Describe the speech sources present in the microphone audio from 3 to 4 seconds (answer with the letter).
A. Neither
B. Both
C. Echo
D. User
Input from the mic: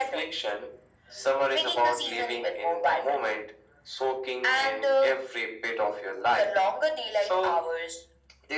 C